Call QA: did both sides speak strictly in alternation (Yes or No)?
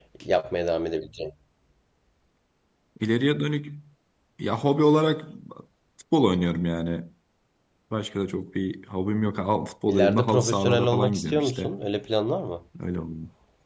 No